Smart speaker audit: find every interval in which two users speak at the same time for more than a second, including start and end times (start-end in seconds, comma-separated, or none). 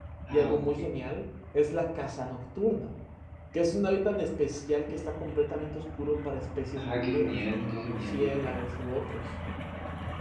6.8-8.6